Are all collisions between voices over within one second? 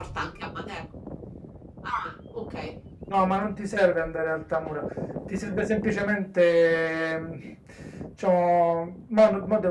Yes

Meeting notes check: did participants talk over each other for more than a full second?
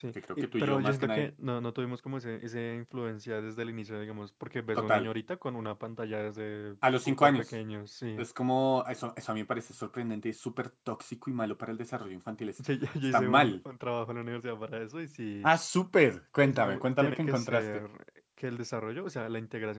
Yes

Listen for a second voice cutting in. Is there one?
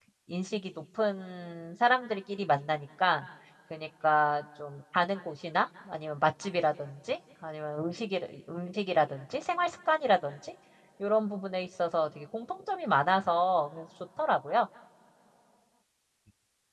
No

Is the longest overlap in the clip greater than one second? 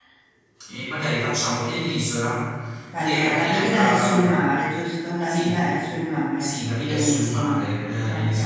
Yes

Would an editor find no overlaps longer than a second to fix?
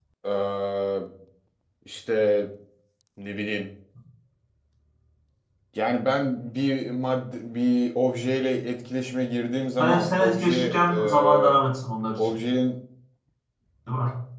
No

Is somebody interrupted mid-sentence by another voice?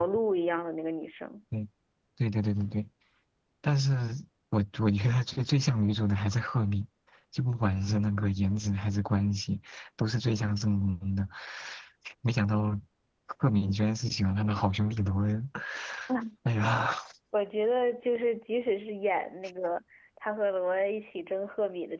No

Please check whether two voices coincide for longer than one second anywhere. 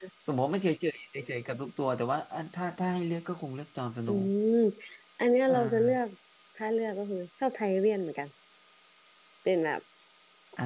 No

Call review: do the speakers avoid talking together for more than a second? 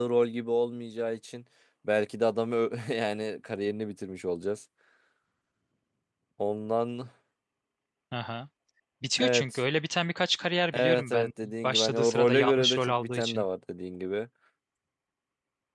No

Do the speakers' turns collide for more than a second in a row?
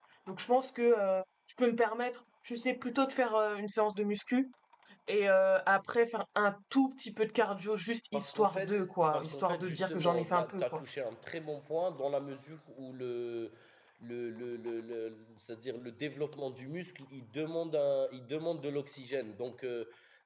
Yes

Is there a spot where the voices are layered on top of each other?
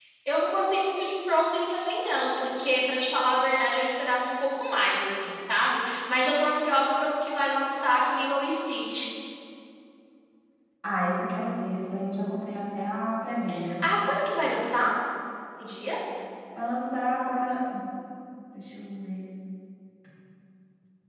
No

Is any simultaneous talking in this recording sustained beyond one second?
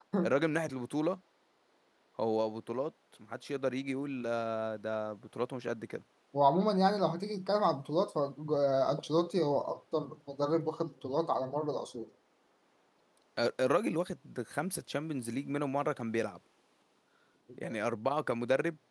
No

